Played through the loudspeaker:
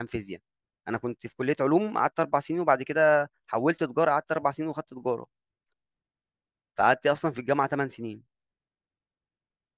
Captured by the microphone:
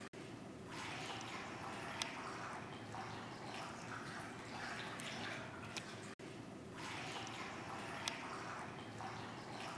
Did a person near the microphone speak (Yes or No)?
No